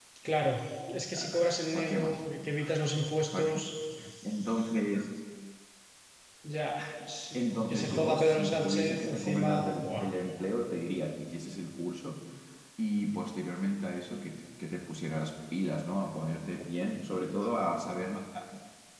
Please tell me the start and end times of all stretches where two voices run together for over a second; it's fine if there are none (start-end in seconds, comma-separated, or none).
7.3-10.0